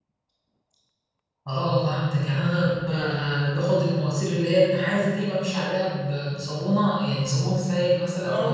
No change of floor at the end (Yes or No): No